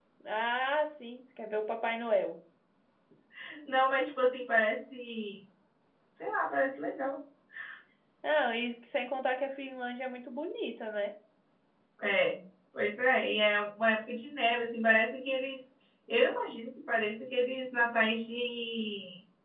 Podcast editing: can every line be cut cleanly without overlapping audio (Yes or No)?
Yes